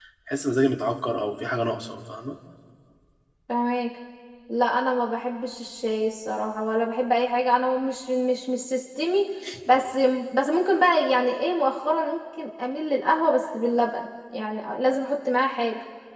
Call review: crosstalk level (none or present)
none